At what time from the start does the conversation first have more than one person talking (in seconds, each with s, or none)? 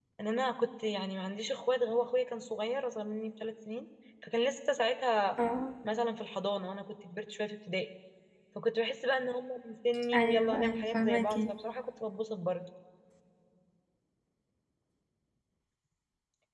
10.1 s